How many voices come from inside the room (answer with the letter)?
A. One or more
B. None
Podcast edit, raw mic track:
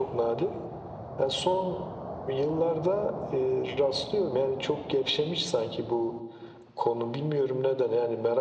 B